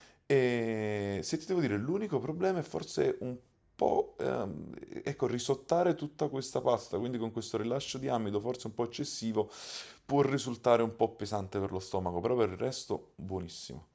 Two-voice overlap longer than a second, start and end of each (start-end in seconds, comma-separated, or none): none